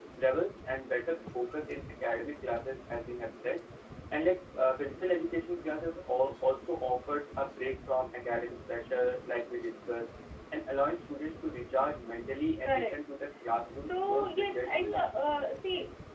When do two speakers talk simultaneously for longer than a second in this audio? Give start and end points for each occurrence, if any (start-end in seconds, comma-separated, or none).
13.8-15.1